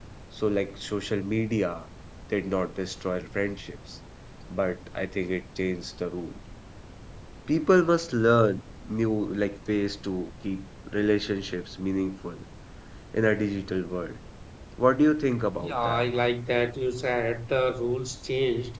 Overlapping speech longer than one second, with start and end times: none

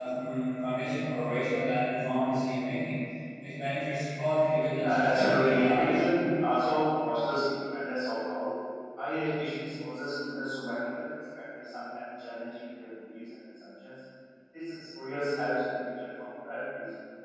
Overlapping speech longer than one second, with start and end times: 4.8-6.0

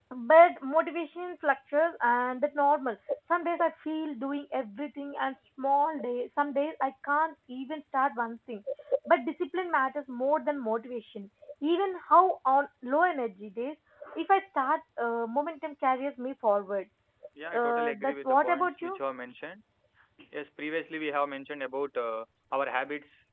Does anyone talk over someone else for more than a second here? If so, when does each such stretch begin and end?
17.5-19.0

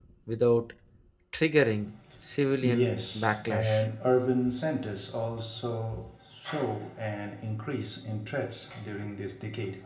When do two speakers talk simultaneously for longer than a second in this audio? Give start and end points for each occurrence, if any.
2.6-3.8

